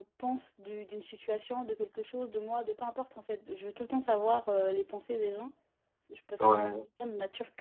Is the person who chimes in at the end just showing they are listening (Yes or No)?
Yes